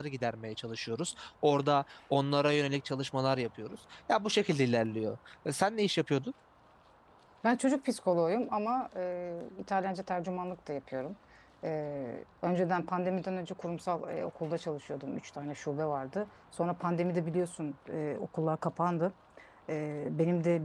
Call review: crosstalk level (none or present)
none